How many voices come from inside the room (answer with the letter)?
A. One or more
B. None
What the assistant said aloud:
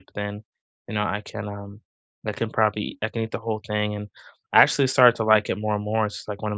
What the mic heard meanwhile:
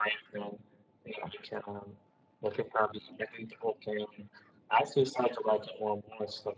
B